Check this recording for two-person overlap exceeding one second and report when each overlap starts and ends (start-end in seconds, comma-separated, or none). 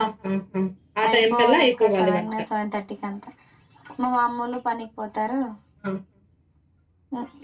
1.1-2.3